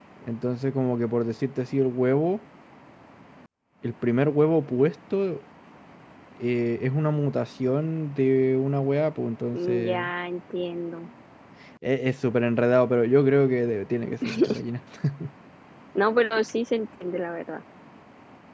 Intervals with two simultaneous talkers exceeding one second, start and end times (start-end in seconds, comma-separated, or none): none